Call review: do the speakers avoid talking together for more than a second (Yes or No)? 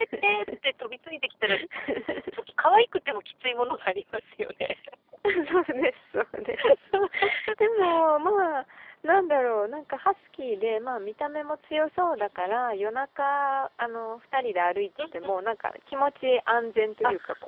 Yes